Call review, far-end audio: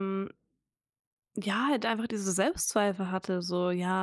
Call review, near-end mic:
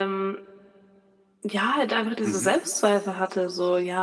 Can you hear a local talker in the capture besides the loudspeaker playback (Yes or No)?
Yes